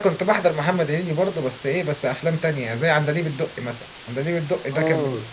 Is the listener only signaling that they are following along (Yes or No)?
Yes